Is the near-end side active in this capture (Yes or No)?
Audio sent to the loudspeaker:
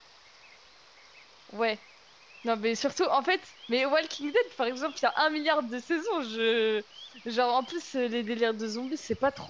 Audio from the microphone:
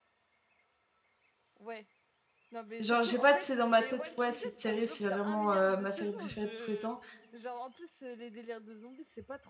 Yes